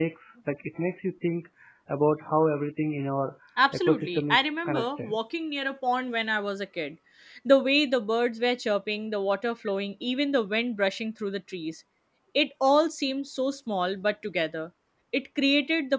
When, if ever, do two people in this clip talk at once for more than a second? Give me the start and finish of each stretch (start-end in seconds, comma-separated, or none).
3.9-5.2